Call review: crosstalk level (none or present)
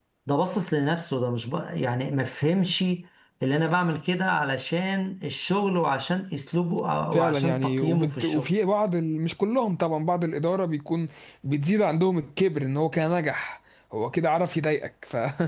present